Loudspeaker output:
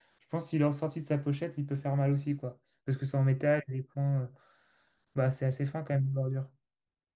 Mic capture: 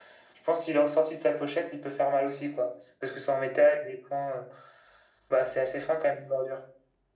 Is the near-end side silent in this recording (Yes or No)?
Yes